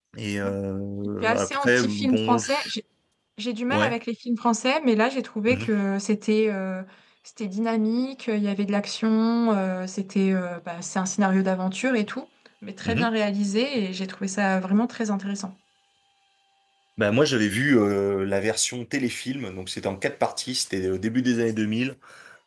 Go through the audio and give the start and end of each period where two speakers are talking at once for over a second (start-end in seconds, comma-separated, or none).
1.2-2.7